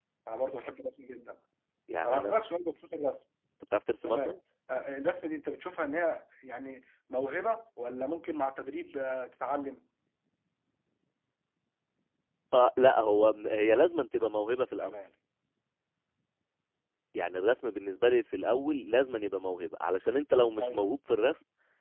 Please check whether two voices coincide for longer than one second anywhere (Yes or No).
No